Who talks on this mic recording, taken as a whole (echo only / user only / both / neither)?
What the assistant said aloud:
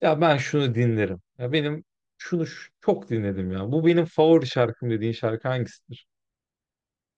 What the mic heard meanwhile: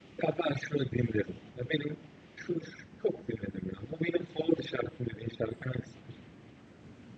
echo only